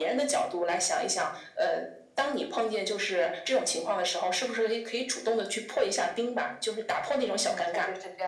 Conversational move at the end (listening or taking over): taking over